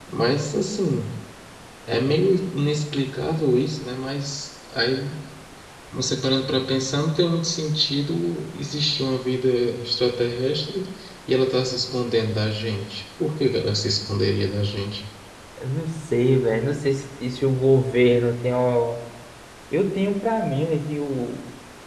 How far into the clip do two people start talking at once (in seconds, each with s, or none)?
none